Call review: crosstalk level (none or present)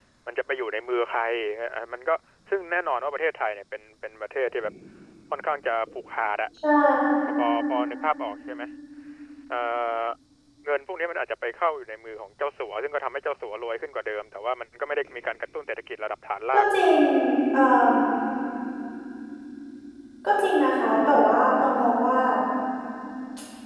none